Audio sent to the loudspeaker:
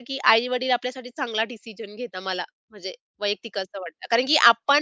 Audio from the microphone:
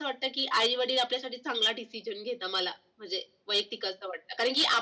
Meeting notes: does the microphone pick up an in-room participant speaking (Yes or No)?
No